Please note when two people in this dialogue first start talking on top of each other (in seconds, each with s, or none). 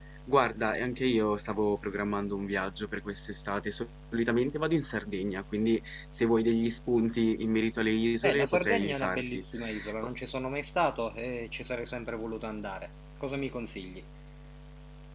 8.2 s